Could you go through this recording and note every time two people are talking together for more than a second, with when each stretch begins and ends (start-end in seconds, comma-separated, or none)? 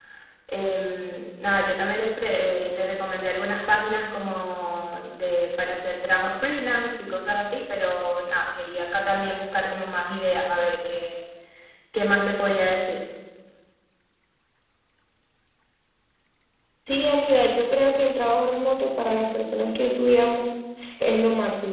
none